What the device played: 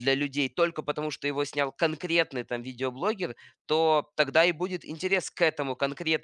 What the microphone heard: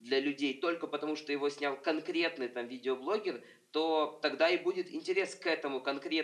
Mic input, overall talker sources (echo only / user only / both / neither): echo only